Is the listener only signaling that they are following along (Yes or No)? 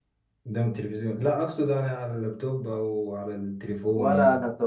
No